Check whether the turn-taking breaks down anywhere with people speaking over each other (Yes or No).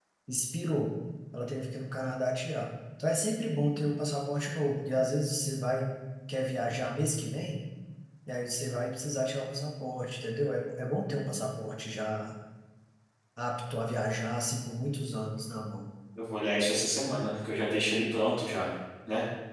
No